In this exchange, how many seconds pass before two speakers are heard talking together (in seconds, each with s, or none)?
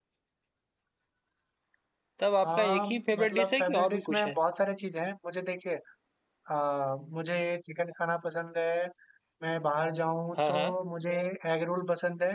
2.4 s